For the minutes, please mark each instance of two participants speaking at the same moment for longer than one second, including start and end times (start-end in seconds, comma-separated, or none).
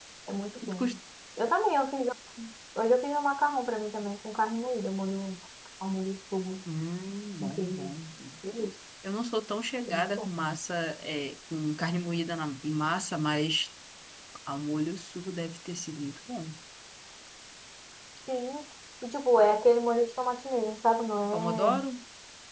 none